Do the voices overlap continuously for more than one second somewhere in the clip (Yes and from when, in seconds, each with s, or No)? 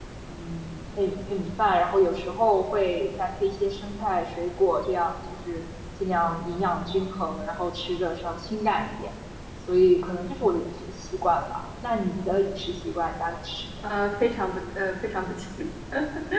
No